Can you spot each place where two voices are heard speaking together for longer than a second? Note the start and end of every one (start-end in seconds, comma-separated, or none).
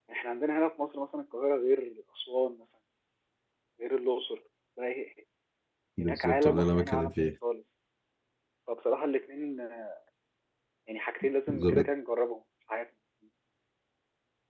6.0-7.3